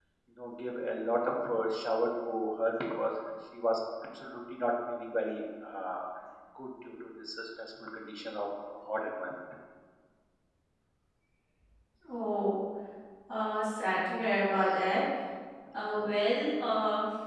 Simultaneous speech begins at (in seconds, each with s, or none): none